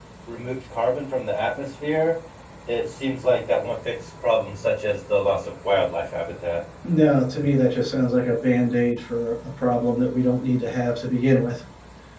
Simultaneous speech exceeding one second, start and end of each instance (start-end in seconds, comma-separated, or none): none